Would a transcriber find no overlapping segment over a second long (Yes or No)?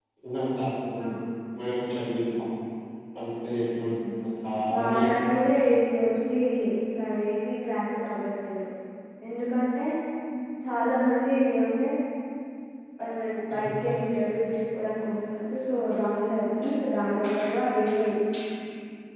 Yes